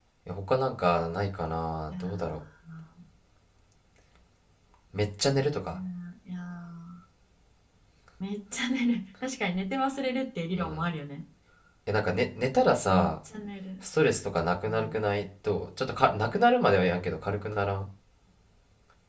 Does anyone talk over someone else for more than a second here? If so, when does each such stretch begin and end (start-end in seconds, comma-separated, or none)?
none